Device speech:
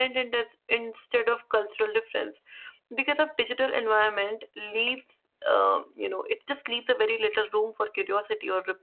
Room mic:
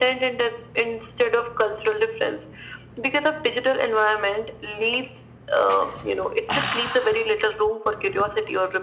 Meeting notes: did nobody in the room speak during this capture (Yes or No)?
Yes